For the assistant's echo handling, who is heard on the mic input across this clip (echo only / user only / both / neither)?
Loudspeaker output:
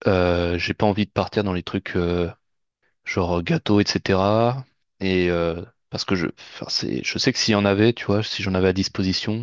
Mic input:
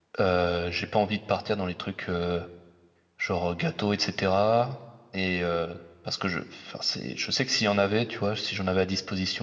echo only